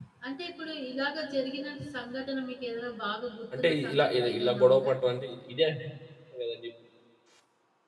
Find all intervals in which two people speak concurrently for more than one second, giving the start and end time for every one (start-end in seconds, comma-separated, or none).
3.5-4.9